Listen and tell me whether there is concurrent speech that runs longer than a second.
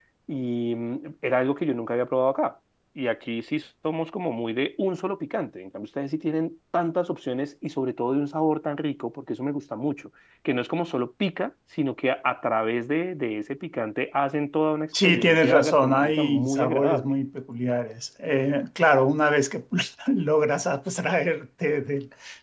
Yes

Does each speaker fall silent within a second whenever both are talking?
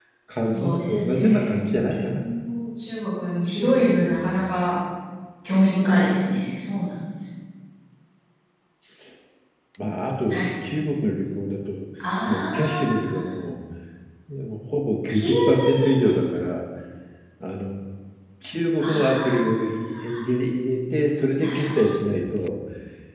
No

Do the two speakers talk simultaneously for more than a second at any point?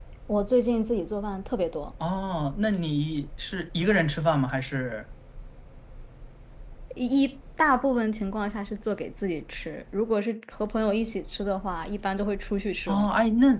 No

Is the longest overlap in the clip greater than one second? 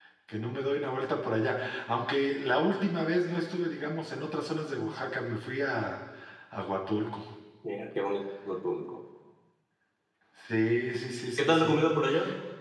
No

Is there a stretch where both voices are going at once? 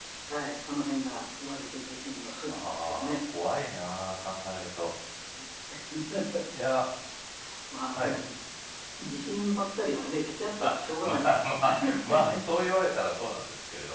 Yes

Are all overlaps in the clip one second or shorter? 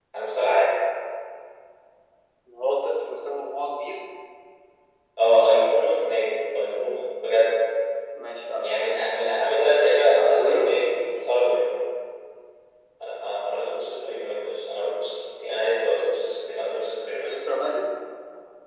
Yes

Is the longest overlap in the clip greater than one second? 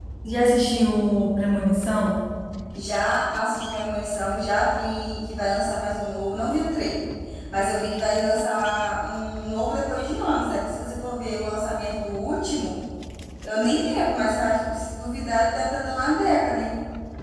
No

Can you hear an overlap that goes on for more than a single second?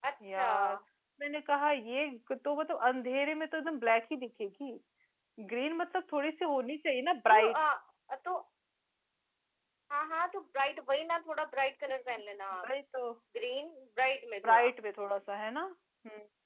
No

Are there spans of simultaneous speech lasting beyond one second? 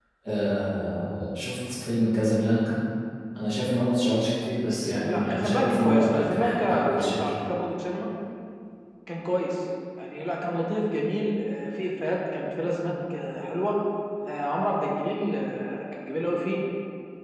Yes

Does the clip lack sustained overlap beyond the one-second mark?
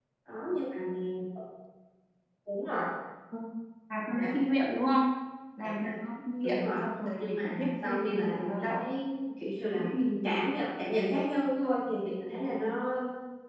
No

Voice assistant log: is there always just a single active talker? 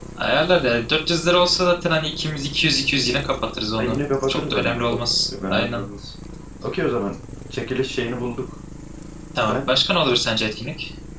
No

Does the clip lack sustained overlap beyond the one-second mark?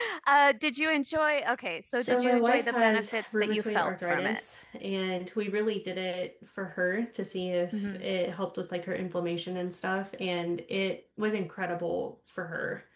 No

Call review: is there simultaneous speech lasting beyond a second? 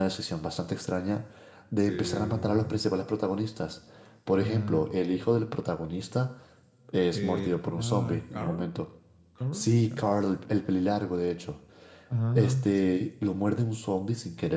Yes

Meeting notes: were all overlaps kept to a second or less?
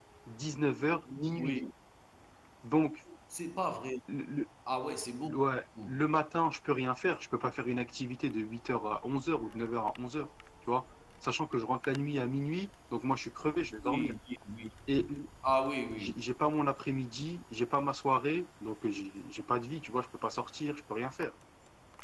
Yes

